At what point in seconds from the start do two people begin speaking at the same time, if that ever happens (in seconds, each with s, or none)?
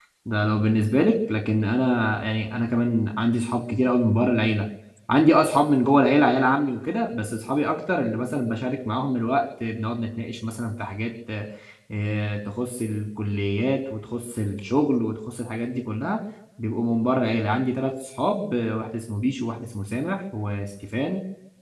none